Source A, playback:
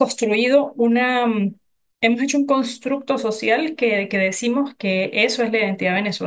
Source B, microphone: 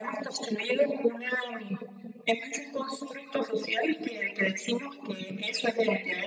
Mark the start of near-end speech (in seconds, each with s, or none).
none